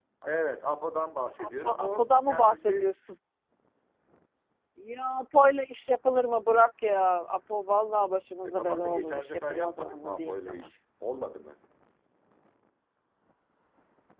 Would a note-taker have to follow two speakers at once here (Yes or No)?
Yes